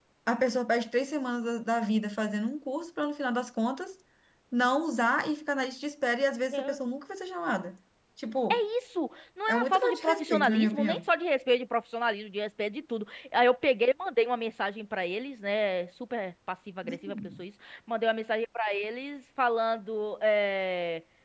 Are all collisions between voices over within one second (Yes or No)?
No